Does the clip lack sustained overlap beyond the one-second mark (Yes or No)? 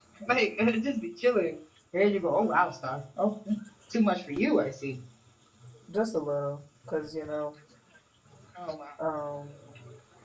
Yes